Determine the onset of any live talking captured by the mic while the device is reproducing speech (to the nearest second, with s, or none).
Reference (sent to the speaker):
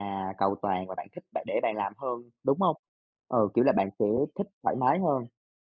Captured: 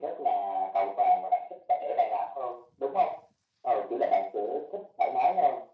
none